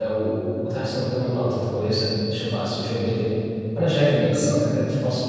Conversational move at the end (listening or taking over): listening